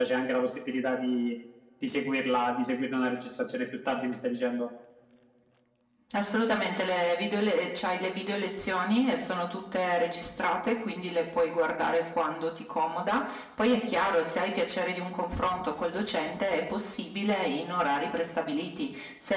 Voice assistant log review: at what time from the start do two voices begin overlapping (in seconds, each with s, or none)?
none